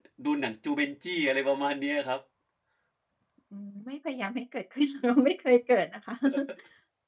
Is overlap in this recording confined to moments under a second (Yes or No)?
Yes